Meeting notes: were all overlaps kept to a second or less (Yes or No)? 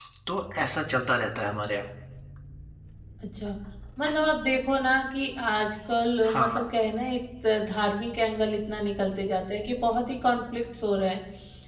Yes